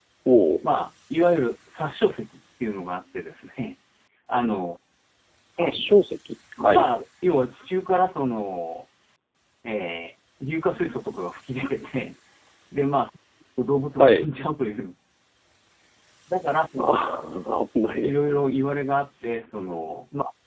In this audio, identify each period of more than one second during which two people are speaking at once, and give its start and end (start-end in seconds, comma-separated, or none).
none